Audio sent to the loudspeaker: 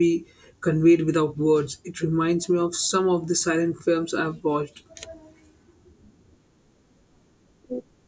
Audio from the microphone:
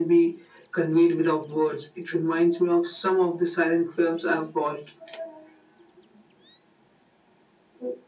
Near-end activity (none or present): none